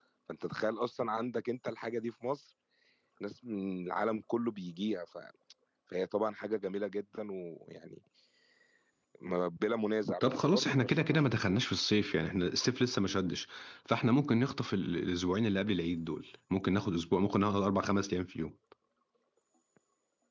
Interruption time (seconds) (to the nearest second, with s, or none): 10 s